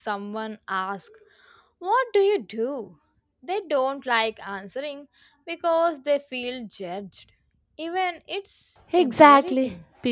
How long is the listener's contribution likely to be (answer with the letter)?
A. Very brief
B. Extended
B